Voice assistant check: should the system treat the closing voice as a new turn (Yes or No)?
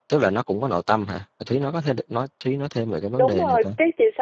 Yes